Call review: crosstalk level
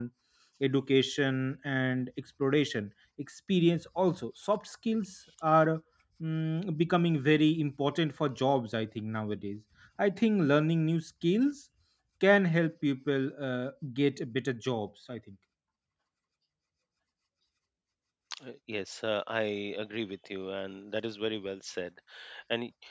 none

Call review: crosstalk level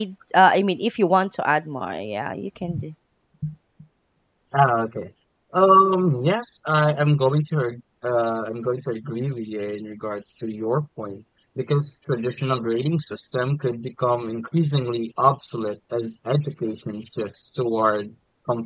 none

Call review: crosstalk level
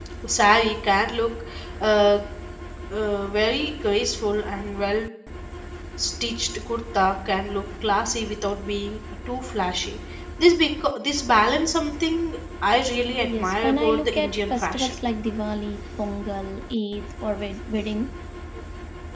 present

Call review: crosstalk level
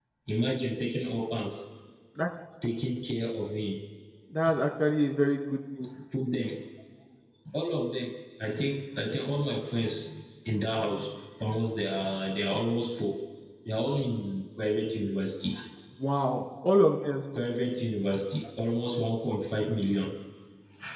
none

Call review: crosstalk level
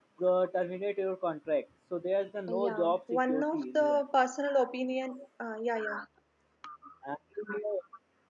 present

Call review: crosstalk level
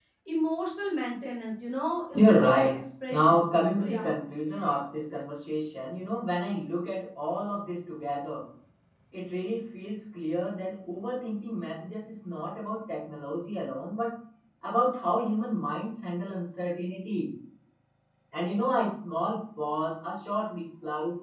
present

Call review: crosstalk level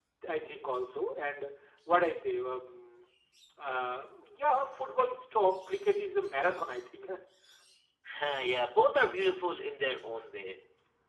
none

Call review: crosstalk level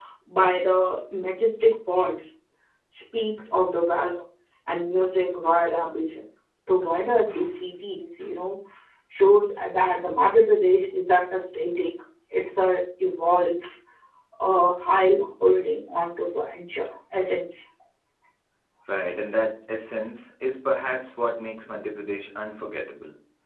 none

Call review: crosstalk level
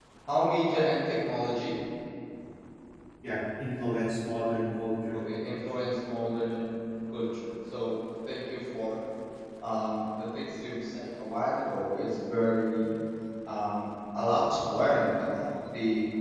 none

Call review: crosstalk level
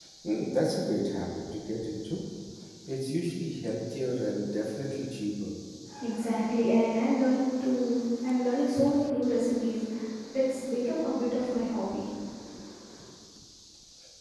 none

